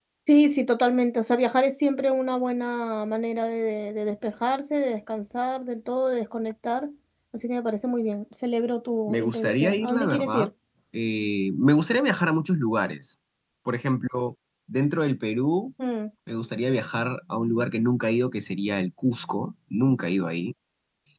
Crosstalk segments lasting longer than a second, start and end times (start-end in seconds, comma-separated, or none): 9.1-10.5